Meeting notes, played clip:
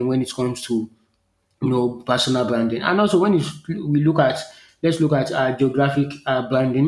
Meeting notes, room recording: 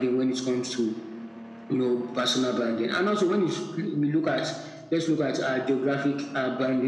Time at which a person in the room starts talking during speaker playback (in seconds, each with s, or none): none